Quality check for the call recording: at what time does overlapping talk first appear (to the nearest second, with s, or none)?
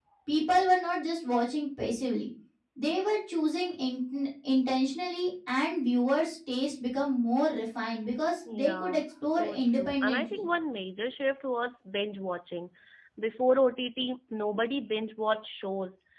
8 s